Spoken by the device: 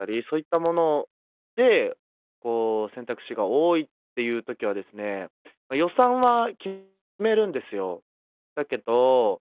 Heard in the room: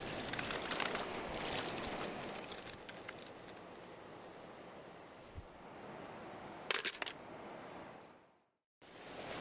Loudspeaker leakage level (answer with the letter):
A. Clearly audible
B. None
B